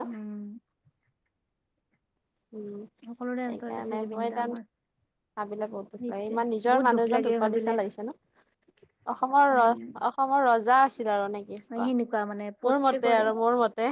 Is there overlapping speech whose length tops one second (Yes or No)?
Yes